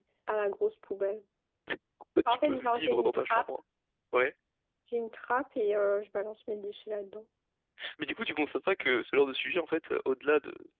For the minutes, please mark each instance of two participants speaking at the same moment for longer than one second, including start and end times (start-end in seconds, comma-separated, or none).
2.3-3.5